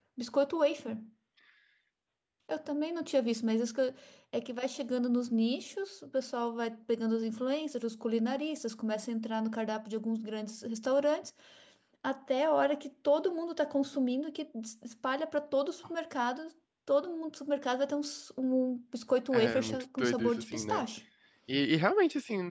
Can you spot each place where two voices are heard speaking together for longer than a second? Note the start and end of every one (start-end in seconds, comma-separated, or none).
19.3-20.8